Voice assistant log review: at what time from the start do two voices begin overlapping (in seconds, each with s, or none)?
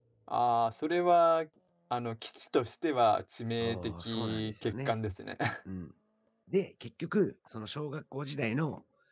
3.6 s